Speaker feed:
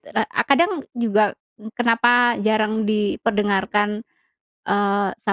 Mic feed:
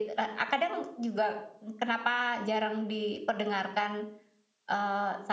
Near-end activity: none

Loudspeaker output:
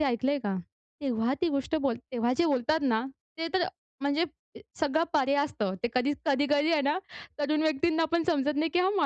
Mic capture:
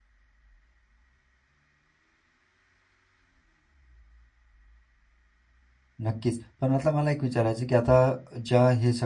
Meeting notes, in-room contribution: present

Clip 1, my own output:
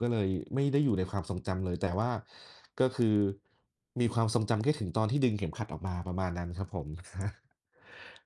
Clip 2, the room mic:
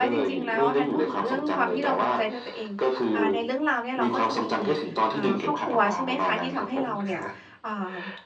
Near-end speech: present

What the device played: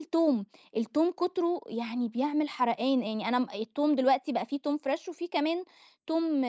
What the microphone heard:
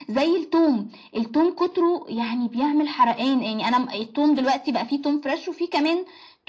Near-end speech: none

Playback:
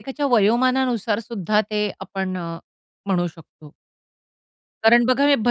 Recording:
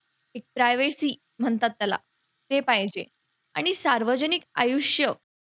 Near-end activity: present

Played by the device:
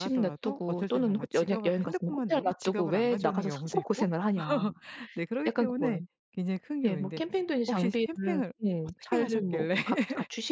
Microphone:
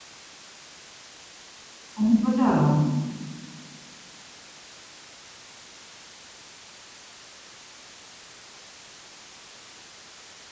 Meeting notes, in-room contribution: present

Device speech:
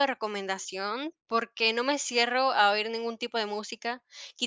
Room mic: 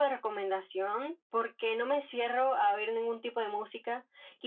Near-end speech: none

